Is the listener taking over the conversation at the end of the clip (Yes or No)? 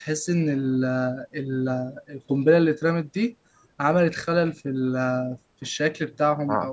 Yes